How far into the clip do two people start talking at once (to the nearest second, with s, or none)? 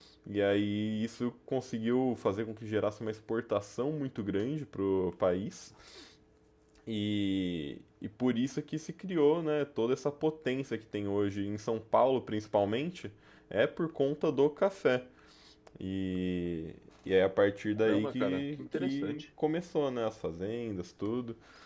18 s